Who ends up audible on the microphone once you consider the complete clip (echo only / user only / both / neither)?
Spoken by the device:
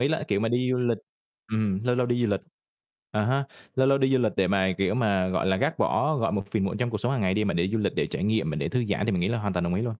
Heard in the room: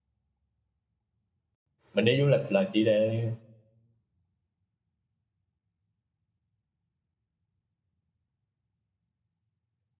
user only